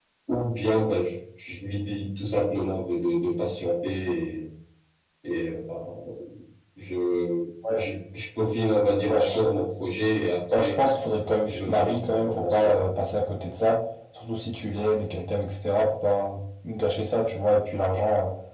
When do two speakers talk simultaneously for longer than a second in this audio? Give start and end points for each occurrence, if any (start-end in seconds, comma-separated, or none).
11.4-12.8